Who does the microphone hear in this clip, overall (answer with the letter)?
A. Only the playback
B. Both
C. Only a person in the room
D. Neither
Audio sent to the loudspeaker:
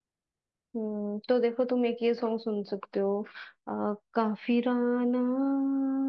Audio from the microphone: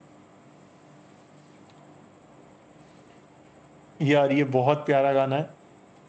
C